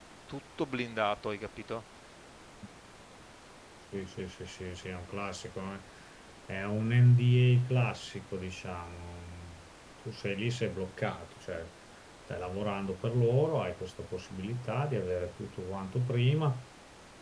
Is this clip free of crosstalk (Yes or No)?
Yes